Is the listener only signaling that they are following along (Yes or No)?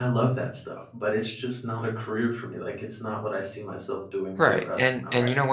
No